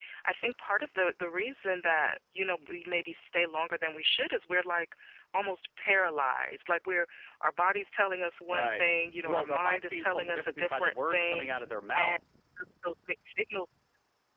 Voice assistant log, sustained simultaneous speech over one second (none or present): present